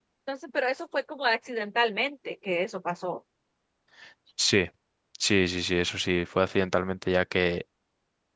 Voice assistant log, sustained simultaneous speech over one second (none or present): none